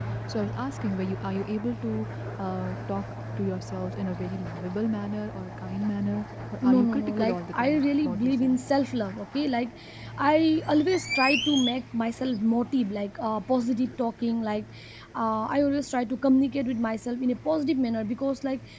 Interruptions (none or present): present